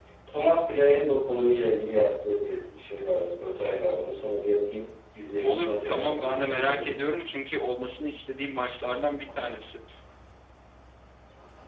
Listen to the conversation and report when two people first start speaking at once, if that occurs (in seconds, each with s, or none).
5.4 s